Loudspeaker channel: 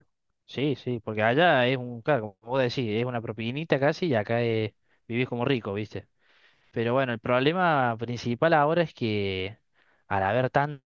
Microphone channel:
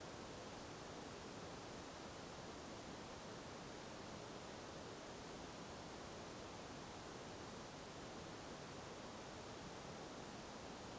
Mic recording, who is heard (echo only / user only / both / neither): neither